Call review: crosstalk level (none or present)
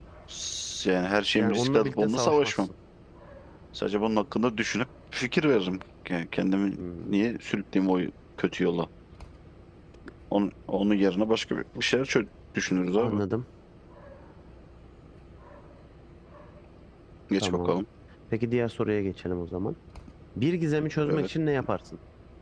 present